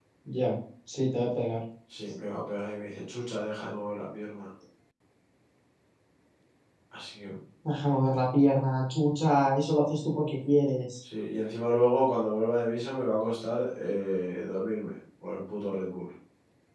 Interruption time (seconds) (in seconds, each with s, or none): none